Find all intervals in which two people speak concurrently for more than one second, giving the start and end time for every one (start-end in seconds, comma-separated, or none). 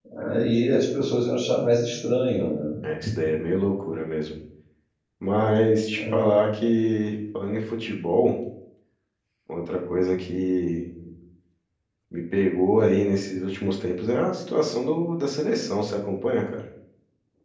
none